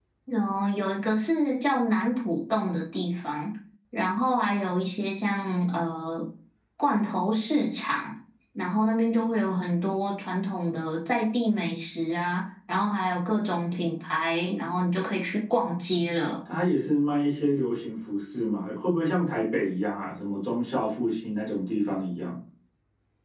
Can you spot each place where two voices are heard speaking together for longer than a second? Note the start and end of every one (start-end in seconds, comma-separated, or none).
none